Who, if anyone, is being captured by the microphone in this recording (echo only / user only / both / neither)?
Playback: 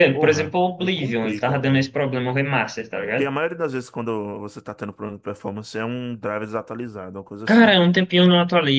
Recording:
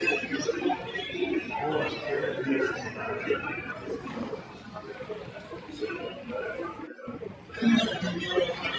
both